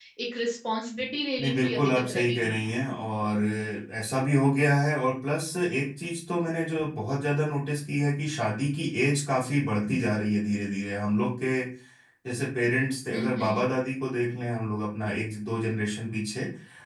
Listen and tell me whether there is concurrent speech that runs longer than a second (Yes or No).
Yes